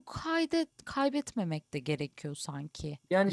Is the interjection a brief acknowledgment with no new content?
No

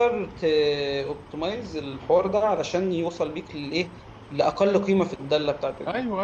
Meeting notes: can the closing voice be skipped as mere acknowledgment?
Yes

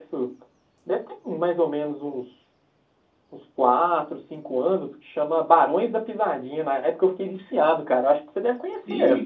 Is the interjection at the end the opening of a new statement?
Yes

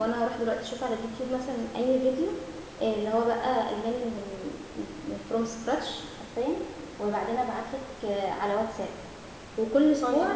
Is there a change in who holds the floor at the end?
No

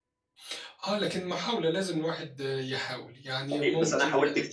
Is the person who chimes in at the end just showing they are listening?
No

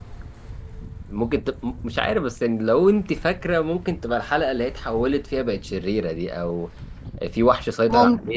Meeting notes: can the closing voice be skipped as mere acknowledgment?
Yes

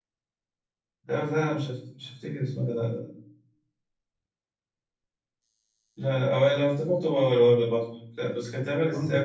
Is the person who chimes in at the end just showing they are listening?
Yes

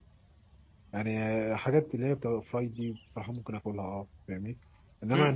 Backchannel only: No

